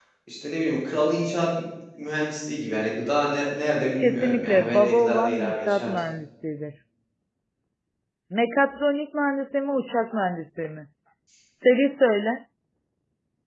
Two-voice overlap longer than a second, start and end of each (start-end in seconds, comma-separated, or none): 4.0-5.9